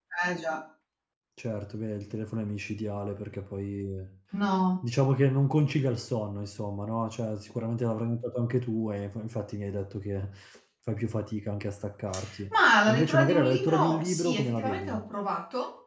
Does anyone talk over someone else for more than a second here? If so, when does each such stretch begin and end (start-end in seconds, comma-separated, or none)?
12.9-15.0